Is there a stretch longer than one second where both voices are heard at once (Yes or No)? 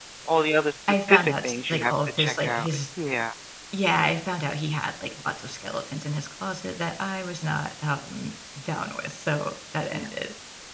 Yes